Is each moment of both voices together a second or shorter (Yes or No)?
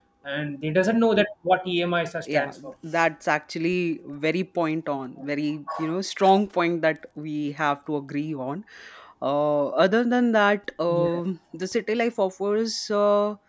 Yes